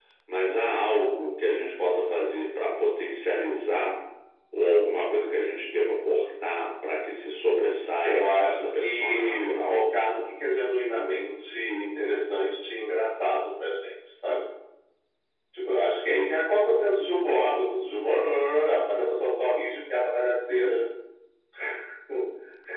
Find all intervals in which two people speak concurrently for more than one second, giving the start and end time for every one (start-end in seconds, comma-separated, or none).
8.0-9.8